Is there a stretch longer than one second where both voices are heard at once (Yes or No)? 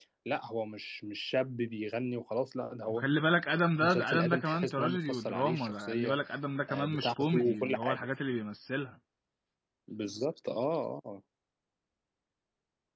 Yes